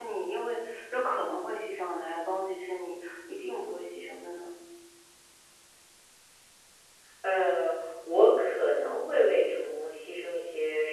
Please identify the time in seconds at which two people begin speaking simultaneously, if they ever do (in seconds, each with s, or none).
none